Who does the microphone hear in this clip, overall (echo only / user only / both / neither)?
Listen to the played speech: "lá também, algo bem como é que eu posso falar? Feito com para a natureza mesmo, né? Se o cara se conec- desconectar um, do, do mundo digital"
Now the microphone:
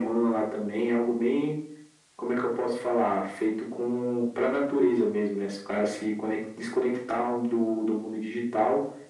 echo only